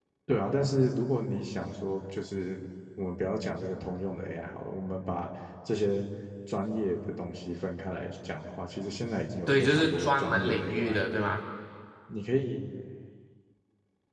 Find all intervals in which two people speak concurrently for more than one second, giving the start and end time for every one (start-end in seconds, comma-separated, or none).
9.5-11.2